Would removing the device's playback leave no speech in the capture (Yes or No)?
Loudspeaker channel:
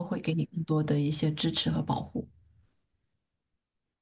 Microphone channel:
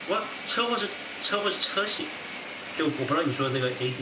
No